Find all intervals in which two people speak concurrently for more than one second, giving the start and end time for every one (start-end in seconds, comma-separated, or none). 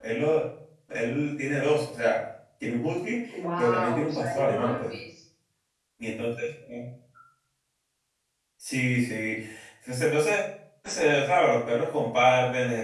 3.6-4.9